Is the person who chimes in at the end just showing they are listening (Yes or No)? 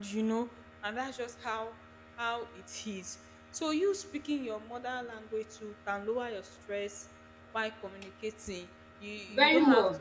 Yes